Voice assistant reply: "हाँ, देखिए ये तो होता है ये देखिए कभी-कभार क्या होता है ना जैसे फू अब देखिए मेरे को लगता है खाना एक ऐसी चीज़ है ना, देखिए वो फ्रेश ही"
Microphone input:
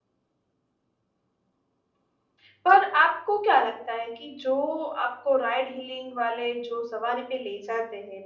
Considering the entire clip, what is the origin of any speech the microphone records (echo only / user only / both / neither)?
user only